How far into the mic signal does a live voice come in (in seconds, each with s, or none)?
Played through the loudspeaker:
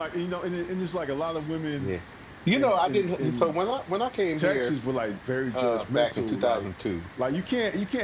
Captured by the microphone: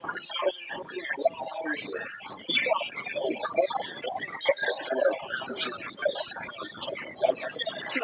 none